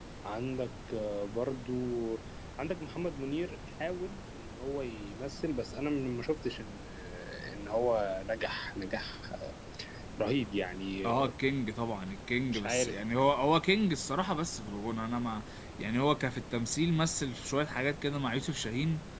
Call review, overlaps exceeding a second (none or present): none